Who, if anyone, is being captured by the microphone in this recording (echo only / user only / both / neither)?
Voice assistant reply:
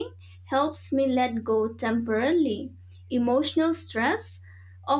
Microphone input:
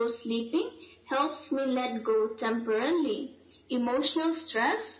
echo only